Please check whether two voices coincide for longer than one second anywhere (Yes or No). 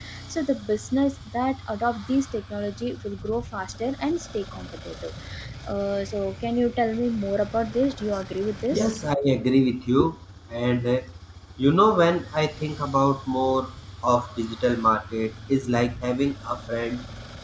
No